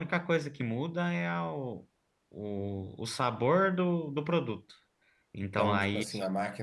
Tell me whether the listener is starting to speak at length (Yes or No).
Yes